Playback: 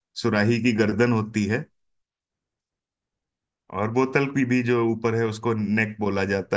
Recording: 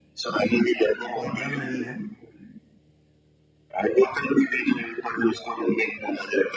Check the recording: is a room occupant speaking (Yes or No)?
Yes